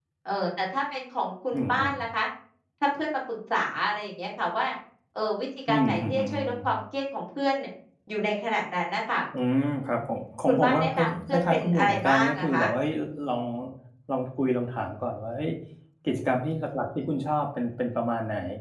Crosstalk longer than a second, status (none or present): present